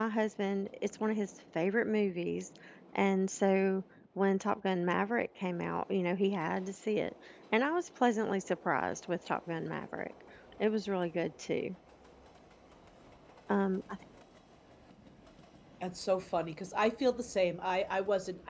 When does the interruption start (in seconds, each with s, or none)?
none